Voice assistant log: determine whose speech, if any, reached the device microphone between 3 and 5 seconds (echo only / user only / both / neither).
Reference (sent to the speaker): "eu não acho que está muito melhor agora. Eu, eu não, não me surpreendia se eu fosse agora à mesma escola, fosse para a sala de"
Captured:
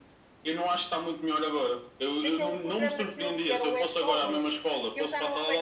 both